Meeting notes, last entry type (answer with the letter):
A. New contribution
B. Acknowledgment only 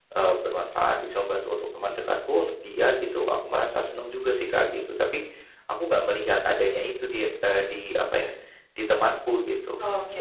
A